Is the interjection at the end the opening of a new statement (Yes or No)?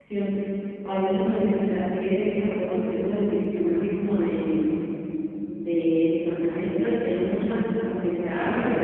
No